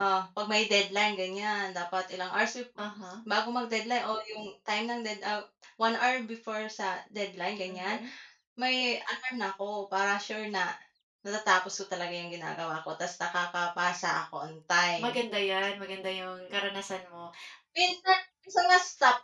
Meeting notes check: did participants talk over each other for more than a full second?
No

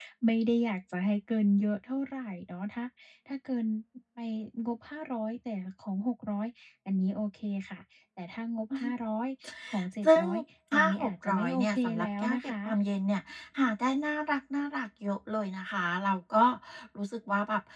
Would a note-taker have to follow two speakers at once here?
Yes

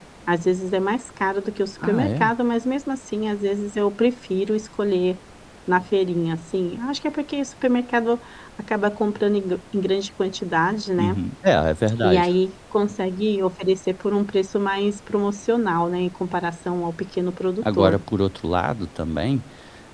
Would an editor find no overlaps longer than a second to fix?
Yes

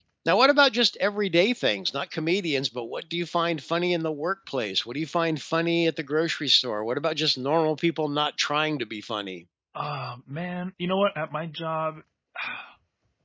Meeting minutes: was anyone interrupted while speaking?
No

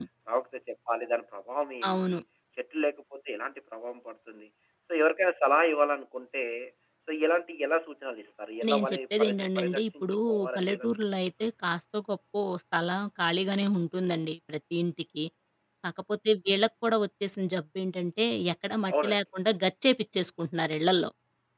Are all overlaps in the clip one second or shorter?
No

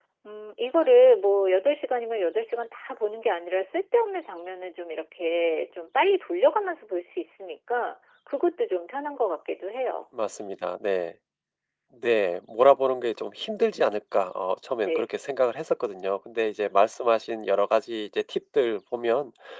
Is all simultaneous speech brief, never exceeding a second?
Yes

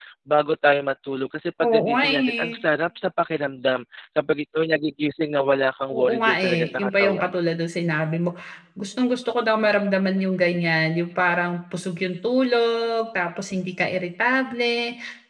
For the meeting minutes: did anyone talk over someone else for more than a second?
Yes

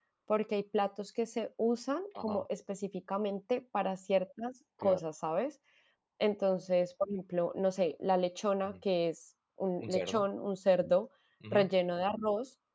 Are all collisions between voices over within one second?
Yes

